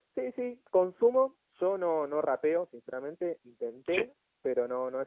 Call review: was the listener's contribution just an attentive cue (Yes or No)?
Yes